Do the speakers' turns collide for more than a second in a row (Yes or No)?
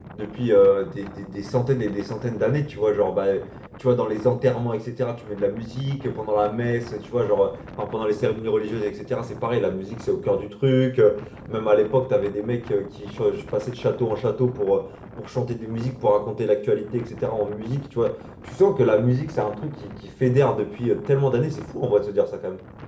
No